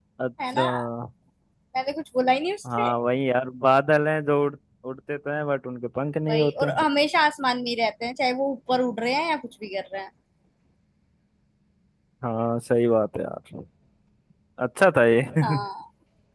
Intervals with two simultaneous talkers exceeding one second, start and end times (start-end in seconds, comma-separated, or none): none